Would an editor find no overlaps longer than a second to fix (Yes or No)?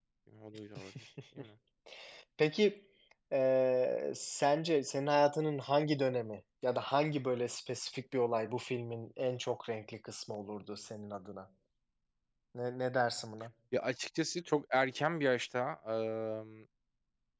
Yes